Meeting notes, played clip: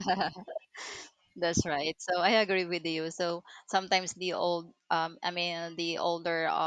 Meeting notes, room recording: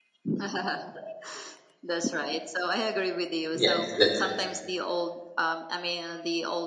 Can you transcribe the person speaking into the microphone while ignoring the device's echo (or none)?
Yes, that's it.